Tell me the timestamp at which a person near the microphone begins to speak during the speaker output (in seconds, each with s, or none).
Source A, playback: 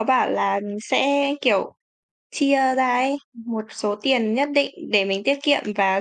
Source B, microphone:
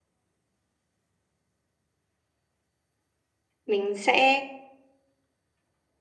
3.6 s